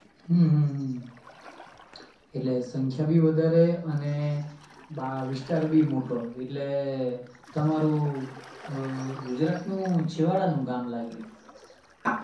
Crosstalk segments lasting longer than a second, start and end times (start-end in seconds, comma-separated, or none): none